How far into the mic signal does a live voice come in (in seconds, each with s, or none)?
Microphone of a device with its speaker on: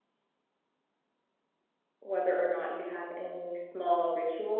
2.0 s